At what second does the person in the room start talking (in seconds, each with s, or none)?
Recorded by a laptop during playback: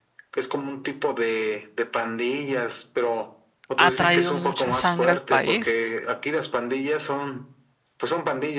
3.8 s